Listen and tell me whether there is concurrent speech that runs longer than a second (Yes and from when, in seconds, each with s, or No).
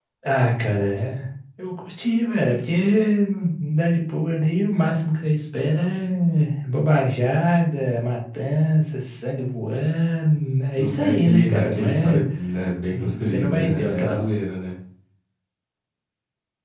Yes, from 10.8 s